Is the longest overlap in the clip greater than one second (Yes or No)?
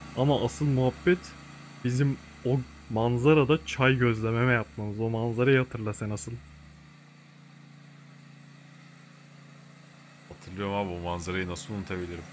No